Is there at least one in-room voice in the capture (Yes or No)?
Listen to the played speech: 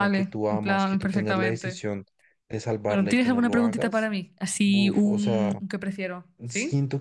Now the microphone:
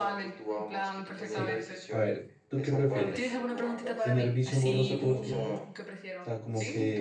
Yes